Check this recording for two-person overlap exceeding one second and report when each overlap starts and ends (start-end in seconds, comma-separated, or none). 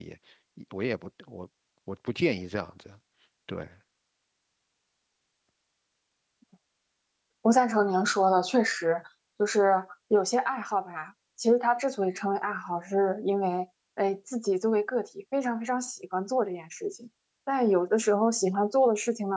none